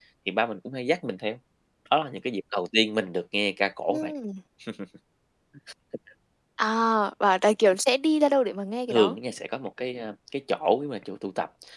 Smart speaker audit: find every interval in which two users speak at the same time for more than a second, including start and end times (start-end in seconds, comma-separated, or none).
none